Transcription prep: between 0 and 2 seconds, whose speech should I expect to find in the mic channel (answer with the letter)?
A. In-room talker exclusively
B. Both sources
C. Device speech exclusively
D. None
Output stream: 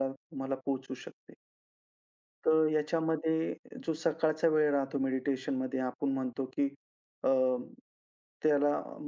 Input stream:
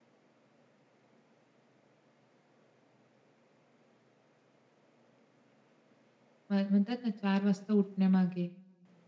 D